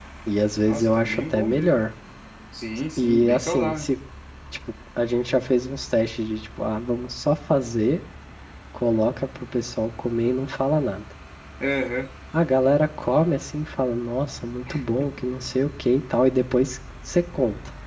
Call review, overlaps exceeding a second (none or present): present